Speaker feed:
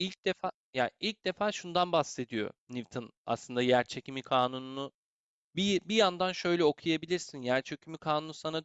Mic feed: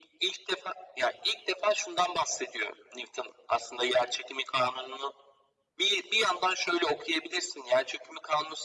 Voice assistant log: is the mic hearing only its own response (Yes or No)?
Yes